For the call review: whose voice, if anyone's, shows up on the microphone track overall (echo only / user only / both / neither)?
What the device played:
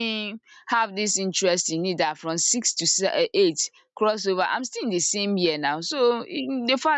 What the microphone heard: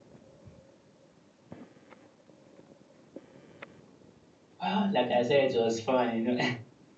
user only